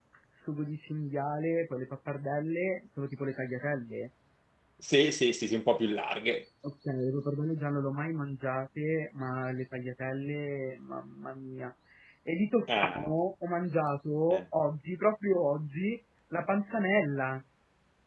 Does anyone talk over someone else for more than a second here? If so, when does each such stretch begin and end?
none

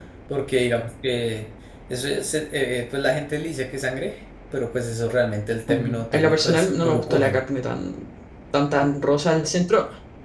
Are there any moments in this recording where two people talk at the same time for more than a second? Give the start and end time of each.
5.7-7.4

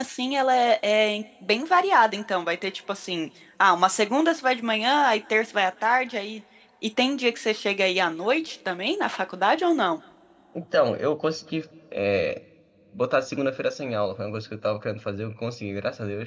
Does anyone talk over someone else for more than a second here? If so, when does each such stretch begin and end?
none

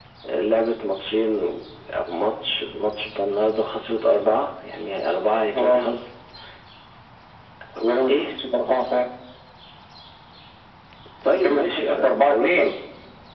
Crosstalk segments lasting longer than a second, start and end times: 11.3-12.7

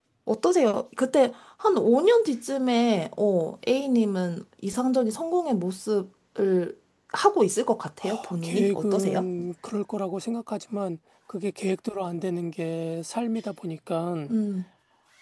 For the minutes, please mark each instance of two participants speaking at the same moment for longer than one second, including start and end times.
8.0-9.2

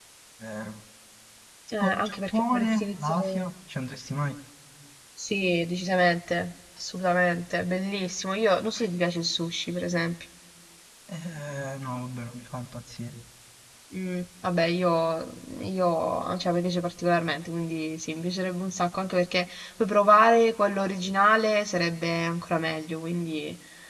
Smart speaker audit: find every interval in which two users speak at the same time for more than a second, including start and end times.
1.8-3.5

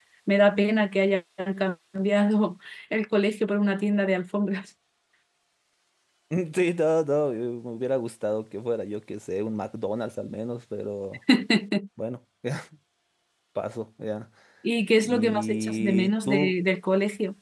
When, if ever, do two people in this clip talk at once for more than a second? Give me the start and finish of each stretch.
15.0-16.5

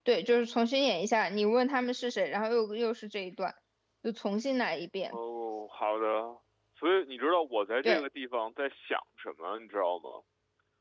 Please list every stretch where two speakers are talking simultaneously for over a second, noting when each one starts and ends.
none

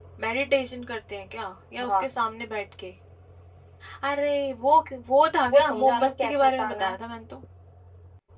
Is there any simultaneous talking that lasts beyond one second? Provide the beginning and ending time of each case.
5.5-7.0

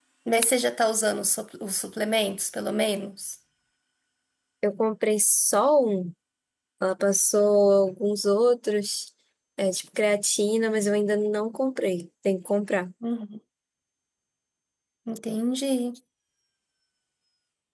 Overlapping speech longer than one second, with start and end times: none

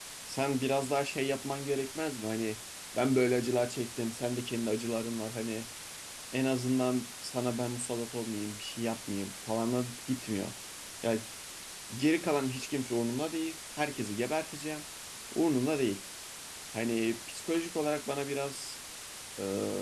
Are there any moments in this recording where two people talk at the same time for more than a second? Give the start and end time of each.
none

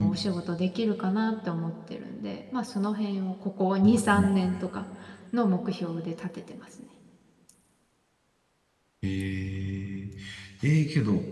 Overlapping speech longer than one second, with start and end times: none

